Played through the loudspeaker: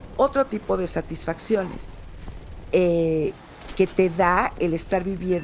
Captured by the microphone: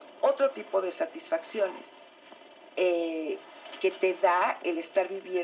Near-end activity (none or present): none